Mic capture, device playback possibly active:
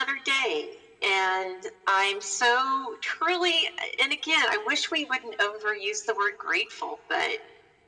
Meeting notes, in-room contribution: none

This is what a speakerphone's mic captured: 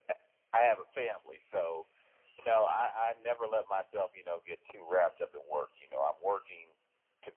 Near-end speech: none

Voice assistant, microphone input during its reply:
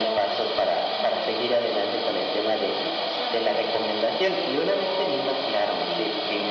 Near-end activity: none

